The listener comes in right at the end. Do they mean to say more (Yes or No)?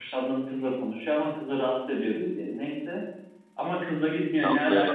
No